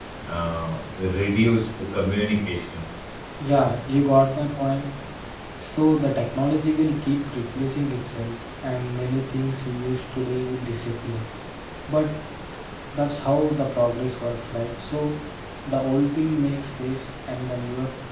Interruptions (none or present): none